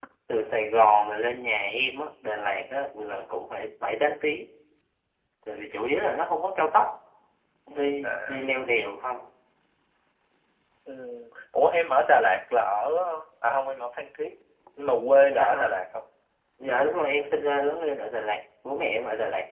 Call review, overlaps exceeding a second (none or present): none